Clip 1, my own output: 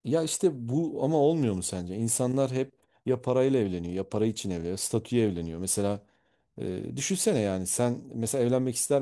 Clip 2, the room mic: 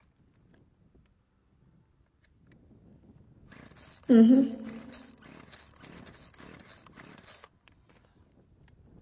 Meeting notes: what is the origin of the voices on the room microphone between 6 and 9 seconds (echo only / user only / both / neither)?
neither